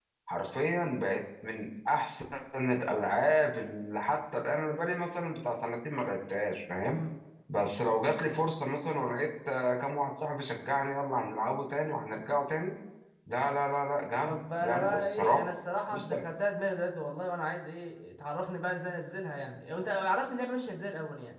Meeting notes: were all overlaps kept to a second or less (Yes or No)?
No